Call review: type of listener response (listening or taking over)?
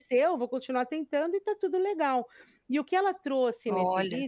listening